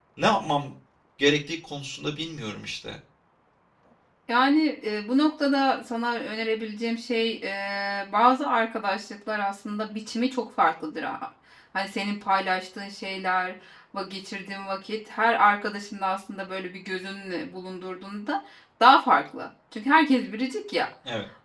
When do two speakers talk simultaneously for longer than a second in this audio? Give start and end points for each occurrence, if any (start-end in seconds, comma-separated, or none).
none